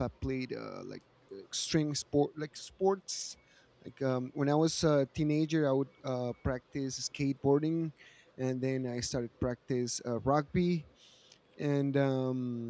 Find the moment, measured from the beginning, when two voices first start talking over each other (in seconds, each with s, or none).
none